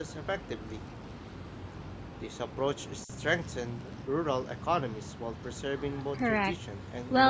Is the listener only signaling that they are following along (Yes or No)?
No